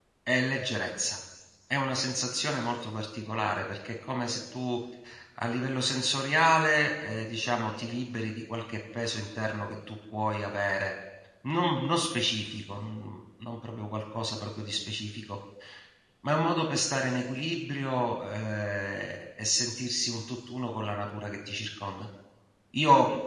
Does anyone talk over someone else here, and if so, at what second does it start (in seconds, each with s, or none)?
none